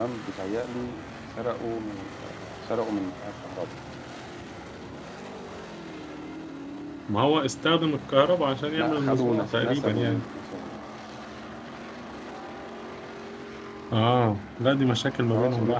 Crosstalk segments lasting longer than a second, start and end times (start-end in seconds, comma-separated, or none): 8.8-10.3